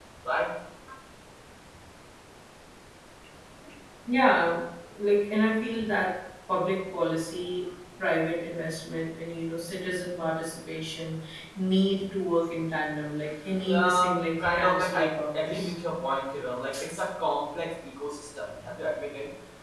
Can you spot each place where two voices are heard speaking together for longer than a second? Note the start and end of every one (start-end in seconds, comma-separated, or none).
13.6-15.7